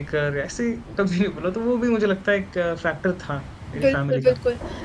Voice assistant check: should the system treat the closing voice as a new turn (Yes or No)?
Yes